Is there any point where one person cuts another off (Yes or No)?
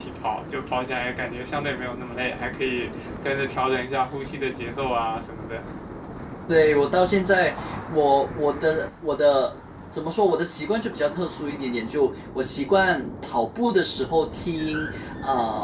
No